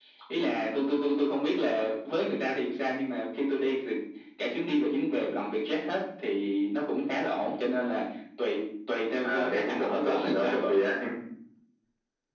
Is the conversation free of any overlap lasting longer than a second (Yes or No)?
No